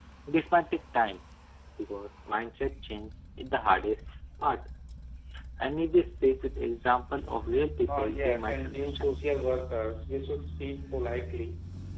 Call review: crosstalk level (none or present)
present